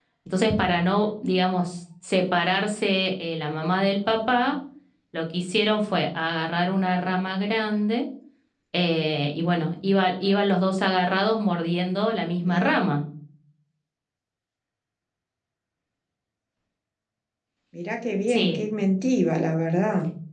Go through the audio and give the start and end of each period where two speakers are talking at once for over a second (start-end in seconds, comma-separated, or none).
none